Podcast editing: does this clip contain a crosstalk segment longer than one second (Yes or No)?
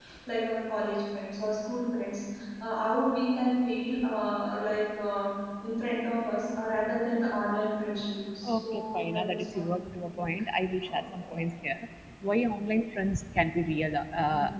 Yes